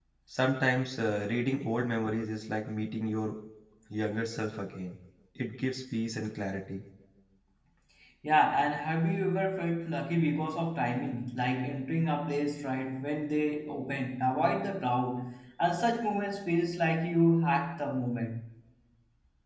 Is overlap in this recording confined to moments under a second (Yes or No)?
Yes